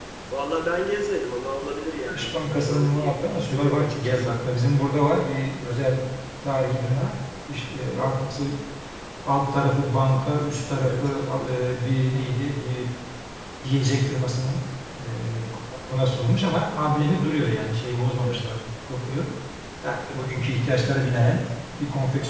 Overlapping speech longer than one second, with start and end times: 2.1-4.3

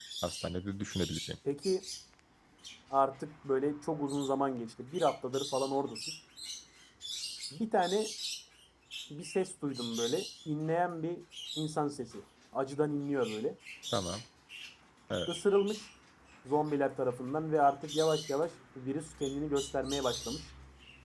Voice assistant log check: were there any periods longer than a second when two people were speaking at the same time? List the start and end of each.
none

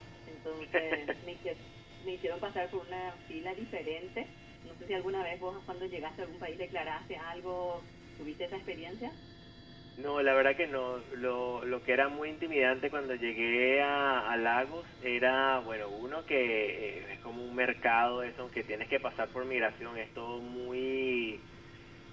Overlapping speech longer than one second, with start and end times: none

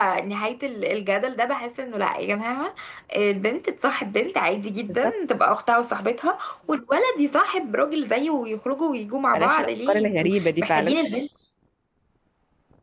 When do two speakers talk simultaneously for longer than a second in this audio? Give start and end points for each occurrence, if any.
9.3-11.0

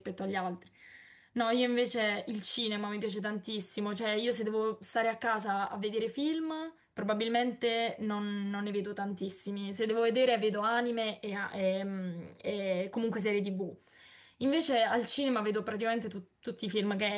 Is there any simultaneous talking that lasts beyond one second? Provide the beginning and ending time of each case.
none

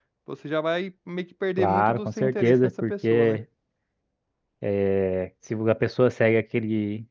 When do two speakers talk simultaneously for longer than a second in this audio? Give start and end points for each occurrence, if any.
1.6-3.4

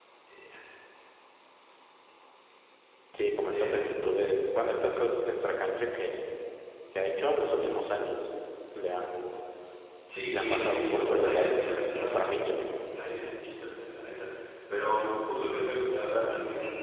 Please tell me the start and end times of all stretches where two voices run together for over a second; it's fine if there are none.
10.3-12.6

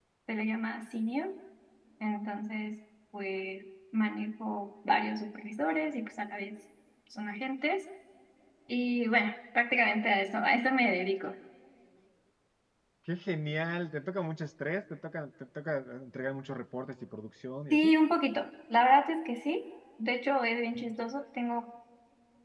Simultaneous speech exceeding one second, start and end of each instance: none

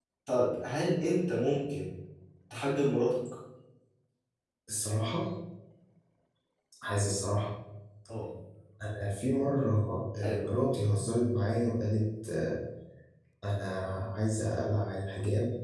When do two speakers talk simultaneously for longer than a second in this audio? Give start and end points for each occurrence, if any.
none

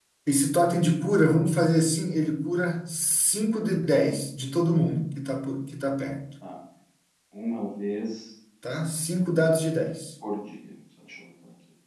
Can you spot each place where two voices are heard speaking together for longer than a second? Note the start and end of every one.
none

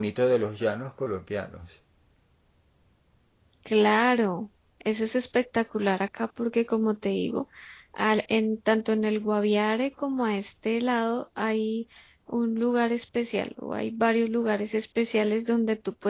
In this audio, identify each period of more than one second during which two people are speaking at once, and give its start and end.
none

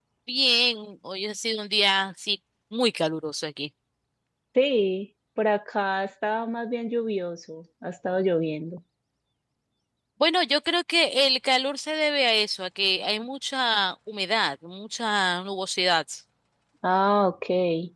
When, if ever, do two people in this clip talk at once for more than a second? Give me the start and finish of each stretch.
none

